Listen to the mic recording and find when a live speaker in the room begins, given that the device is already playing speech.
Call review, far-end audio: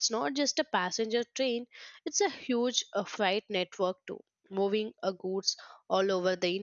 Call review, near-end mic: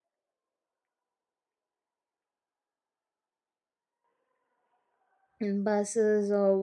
5.4 s

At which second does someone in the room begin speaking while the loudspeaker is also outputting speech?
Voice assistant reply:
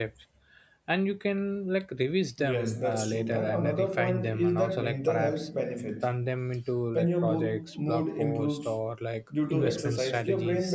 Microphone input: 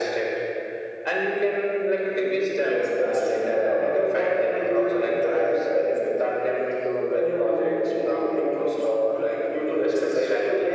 none

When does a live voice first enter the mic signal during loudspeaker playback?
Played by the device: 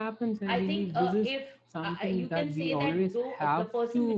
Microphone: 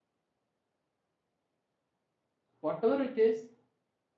2.6 s

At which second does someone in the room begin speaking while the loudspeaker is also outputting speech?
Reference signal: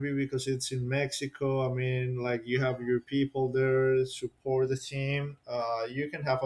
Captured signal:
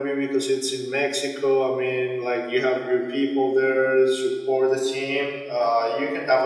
none

